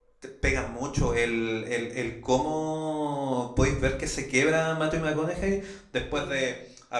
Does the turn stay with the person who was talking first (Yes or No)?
Yes